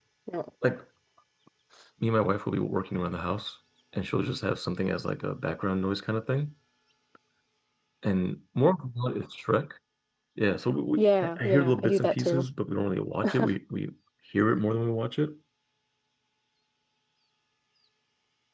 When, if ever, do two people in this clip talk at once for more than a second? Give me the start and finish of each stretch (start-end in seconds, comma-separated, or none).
11.2-12.4